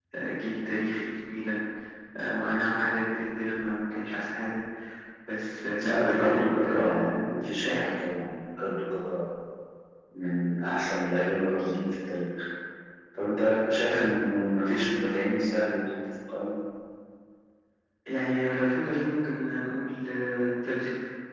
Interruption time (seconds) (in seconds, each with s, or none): 5.8 s